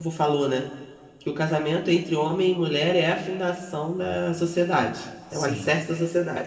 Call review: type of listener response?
listening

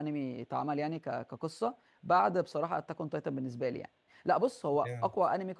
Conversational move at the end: listening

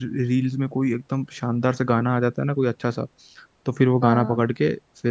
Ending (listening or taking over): listening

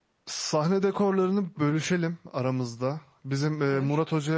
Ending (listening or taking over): listening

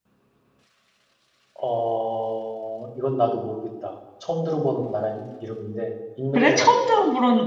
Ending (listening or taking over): taking over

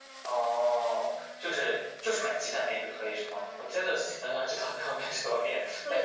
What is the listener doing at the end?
taking over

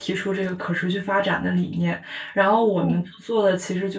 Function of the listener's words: listening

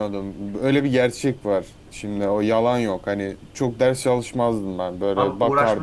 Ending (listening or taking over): taking over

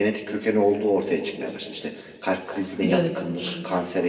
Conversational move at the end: listening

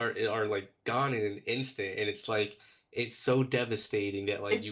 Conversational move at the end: listening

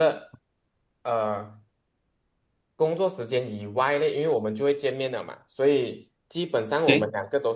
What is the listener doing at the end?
listening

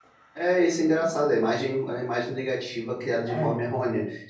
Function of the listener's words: listening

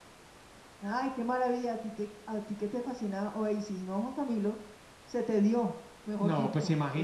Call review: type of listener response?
taking over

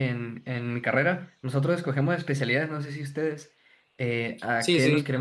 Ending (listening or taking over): listening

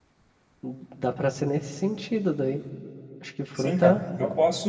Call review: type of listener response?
taking over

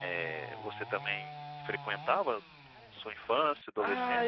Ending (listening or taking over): taking over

